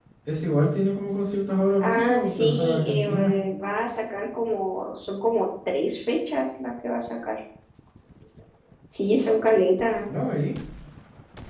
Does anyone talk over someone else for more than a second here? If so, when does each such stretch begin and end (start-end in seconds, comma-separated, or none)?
1.8-3.3